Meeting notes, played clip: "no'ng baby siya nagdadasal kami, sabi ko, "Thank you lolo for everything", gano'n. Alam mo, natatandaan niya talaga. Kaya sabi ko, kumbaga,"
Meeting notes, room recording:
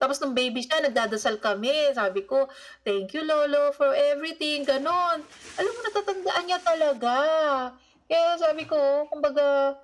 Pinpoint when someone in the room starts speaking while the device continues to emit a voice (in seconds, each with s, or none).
none